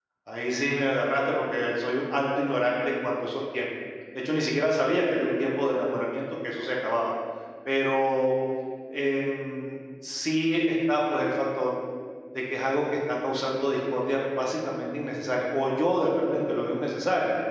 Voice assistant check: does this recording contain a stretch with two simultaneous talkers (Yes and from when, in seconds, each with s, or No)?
No